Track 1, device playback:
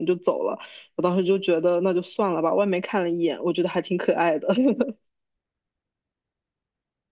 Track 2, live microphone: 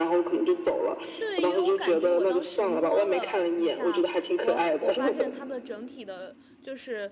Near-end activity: present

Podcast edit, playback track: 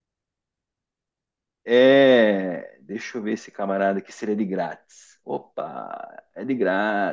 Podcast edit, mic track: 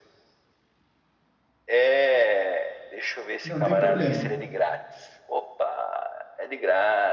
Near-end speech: present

